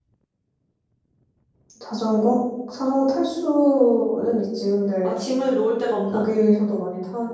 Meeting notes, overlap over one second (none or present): none